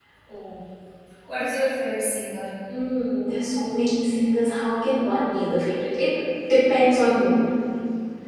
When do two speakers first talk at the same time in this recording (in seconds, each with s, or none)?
none